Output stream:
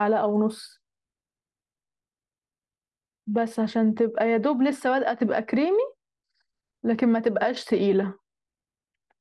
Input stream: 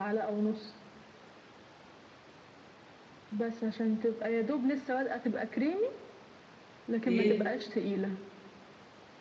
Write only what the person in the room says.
ايه

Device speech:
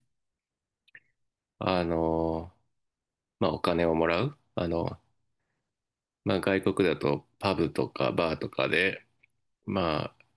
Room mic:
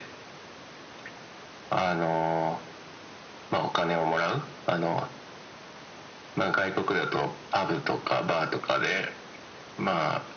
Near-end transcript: none

